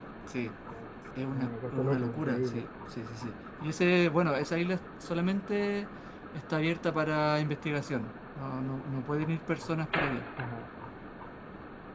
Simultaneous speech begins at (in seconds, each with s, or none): 1.3 s